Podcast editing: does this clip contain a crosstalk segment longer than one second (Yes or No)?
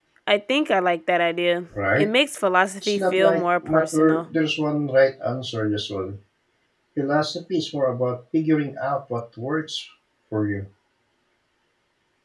Yes